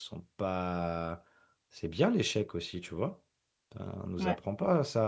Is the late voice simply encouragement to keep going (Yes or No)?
Yes